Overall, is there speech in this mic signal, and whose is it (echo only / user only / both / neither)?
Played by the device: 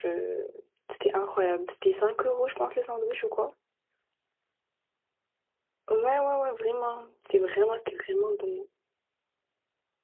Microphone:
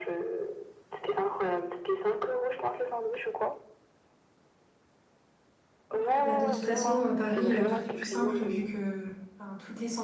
both